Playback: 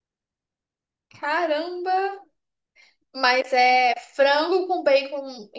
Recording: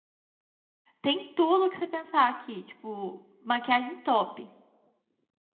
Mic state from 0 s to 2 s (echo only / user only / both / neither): user only